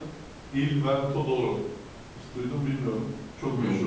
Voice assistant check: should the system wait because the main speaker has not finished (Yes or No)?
Yes